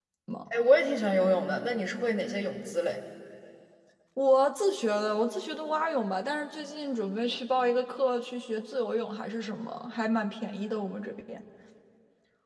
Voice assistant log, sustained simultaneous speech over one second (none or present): none